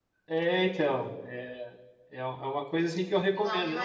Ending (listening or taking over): taking over